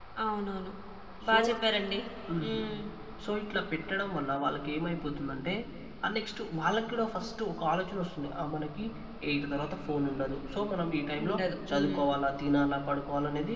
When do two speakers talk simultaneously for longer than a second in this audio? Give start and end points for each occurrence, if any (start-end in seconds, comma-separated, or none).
none